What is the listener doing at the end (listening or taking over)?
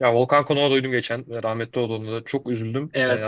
taking over